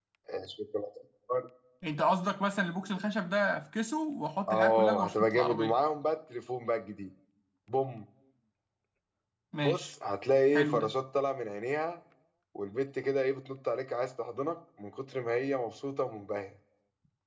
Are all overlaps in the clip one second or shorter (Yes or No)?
No